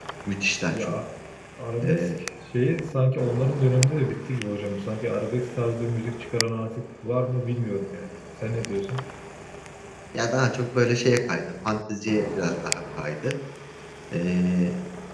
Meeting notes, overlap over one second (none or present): none